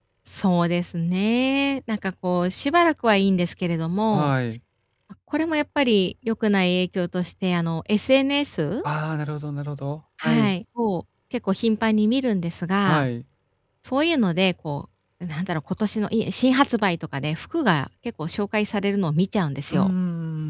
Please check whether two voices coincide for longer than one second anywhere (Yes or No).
No